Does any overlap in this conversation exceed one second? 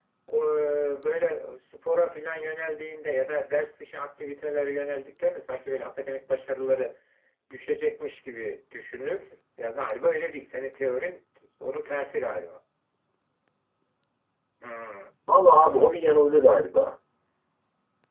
No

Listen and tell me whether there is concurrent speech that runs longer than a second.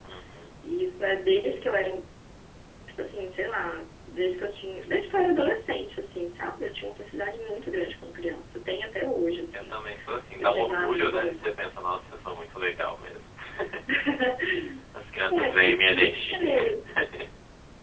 Yes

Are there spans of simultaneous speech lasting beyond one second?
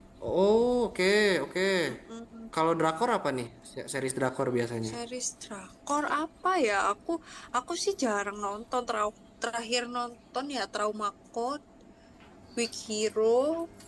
No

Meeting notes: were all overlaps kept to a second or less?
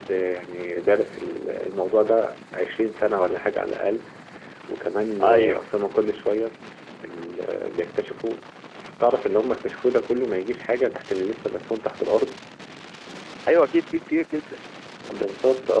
Yes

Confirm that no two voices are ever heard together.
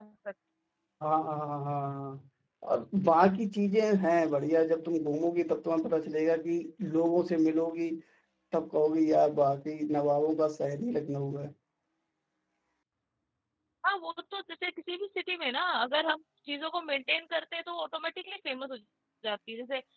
Yes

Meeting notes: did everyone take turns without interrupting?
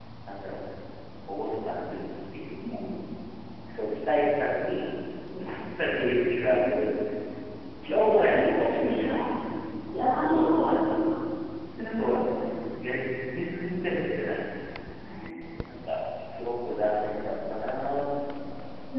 No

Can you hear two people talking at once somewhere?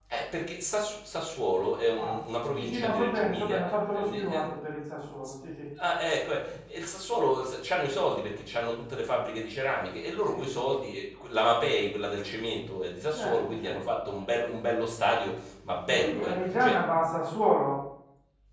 Yes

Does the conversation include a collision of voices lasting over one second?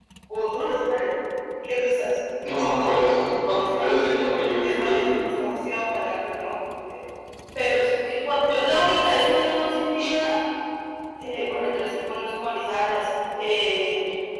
Yes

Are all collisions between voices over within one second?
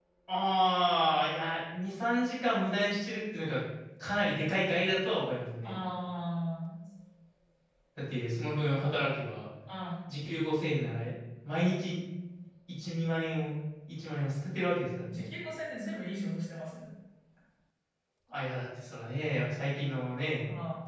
Yes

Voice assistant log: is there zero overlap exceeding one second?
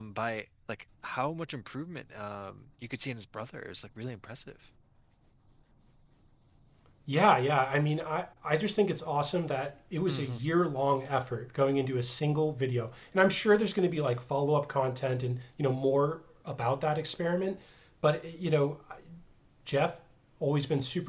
Yes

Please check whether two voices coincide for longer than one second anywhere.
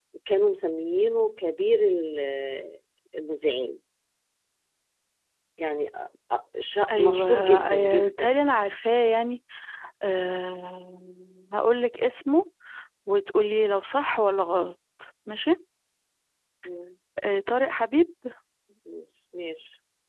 Yes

